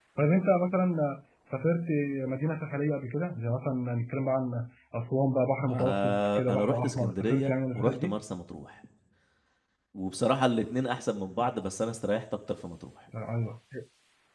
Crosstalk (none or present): present